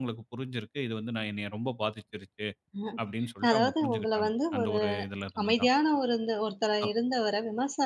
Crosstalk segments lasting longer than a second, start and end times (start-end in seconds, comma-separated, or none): 3.5-4.8